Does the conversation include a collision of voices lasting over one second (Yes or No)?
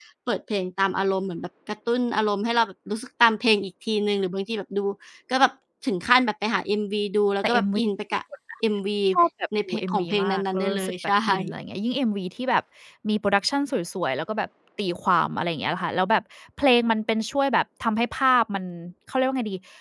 Yes